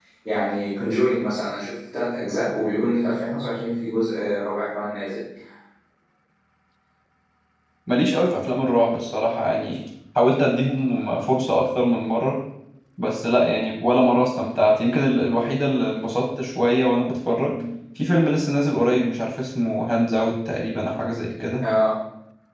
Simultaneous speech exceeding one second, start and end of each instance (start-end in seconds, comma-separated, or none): none